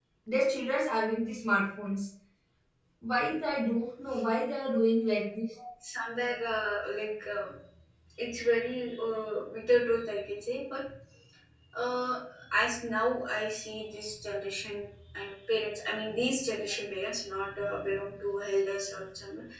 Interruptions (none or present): none